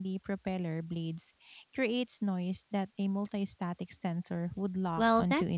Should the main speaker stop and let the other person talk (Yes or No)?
Yes